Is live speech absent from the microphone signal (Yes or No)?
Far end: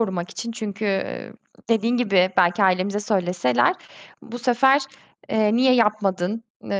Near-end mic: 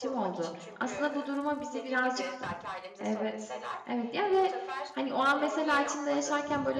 No